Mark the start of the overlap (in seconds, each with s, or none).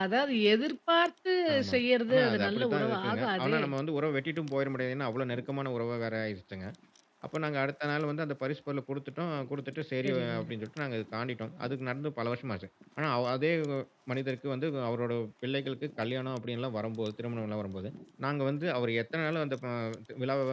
1.7 s